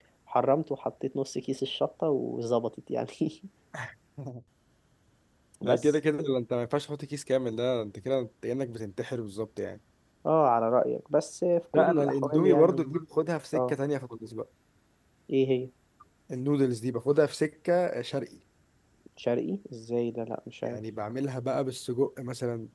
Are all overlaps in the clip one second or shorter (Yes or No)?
No